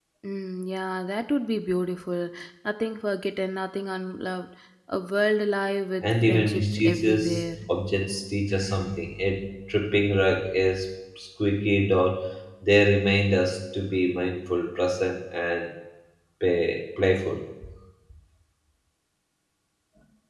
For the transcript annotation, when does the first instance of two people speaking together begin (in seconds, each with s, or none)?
6.0 s